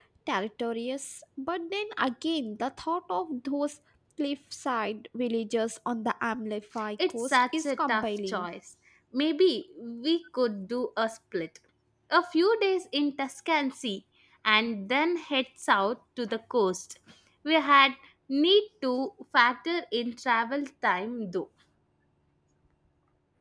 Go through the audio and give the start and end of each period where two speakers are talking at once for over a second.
7.1-8.5

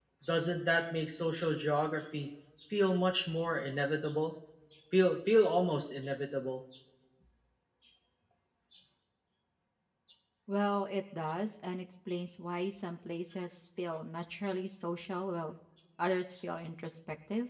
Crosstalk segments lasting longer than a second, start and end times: none

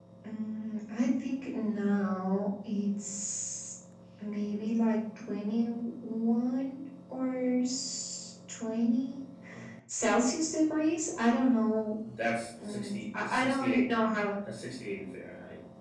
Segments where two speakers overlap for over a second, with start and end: 12.6-13.9

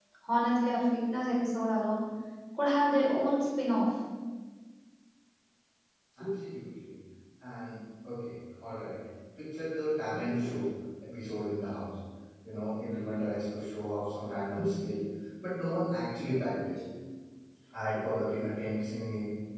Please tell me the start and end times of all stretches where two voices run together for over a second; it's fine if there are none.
none

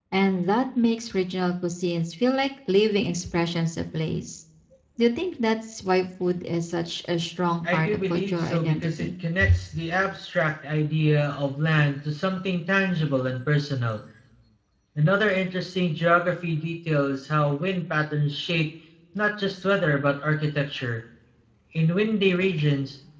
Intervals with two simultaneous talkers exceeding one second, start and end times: 7.7-9.1

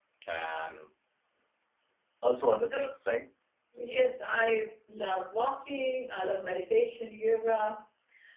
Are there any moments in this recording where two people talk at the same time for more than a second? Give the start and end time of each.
none

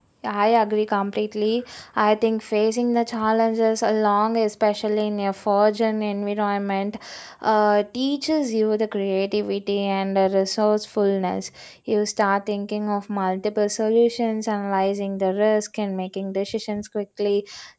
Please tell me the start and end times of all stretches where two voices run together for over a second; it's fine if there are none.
none

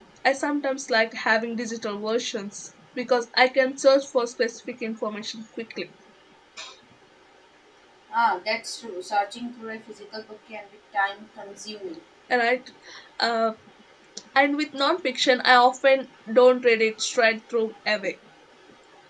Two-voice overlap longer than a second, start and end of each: none

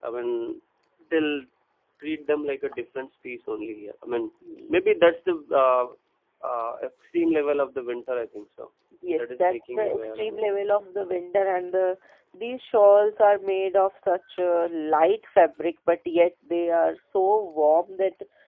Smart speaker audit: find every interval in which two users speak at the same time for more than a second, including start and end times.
9.2-10.4

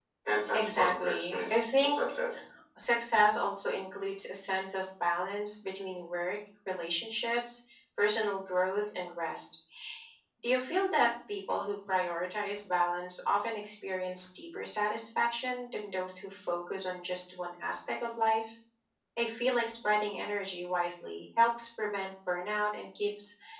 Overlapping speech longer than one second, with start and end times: 0.5-1.9

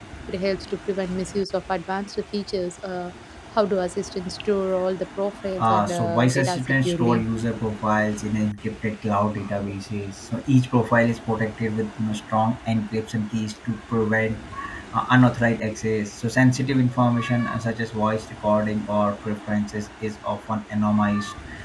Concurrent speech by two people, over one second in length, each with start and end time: 5.6-7.2

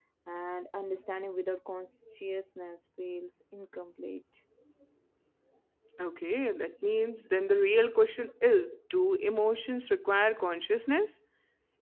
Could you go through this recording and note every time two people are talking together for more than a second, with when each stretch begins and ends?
none

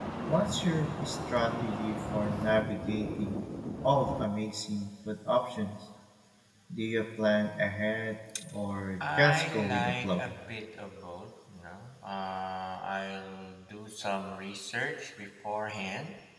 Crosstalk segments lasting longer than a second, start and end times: 9.0-10.2

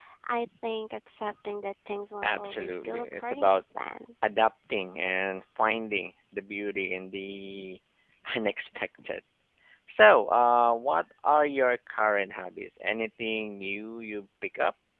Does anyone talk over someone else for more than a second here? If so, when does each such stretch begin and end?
2.2-3.6

